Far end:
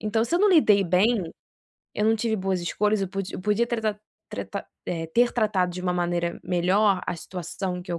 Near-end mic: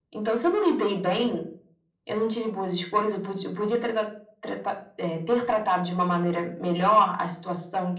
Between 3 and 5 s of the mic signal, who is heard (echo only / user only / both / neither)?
echo only